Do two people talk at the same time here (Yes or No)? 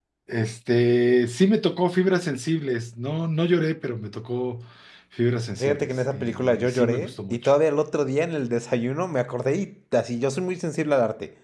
Yes